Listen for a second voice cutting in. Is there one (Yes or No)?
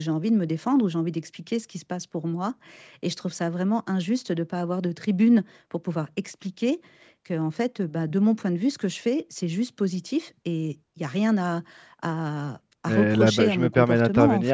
Yes